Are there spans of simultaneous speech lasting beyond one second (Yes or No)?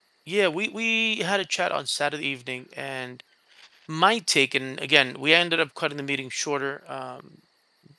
No